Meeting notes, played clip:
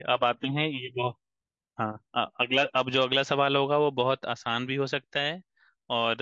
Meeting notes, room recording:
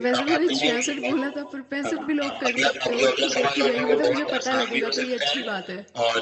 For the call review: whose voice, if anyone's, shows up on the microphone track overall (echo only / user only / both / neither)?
both